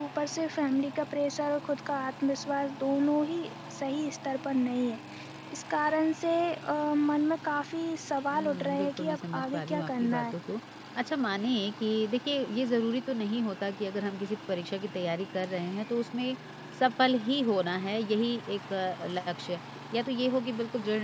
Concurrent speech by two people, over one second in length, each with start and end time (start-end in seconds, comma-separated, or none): 8.3-10.3